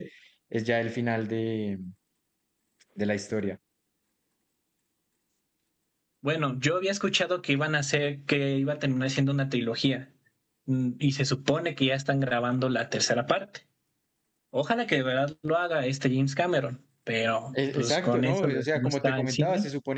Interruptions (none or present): present